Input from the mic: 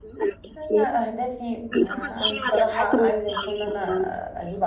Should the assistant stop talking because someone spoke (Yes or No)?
Yes